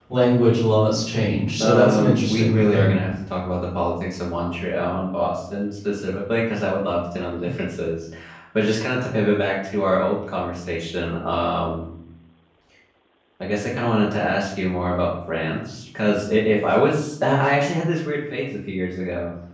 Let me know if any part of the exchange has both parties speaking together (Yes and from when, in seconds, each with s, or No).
Yes, from 1.6 s